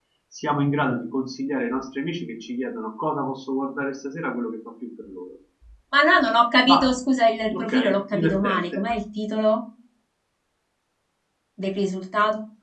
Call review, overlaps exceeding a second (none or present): present